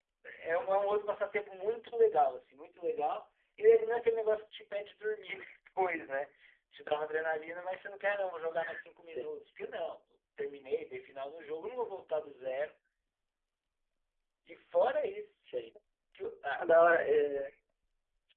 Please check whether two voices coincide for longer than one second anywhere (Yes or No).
No